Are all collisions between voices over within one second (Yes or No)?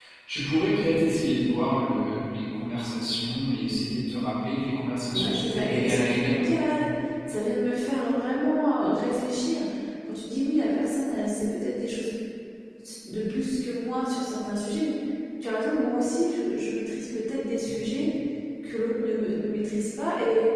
No